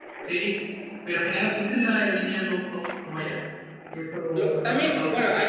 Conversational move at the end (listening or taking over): taking over